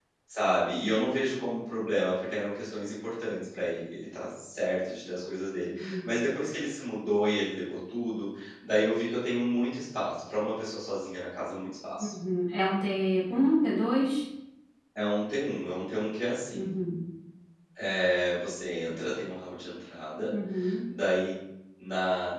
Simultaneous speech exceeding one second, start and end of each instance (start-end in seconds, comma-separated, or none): none